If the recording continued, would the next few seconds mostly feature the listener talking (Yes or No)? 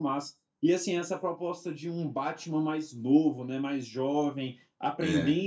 No